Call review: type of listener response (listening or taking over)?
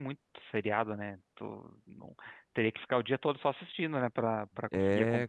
taking over